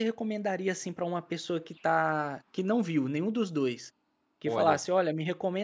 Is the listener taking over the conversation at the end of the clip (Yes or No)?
No